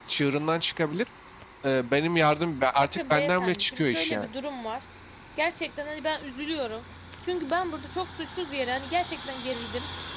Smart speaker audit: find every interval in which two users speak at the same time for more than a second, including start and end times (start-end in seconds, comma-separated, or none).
2.8-4.3